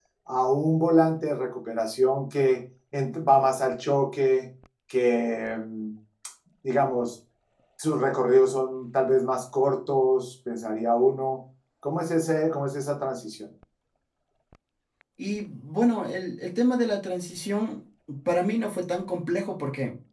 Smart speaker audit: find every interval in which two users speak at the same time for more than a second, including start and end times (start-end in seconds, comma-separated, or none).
none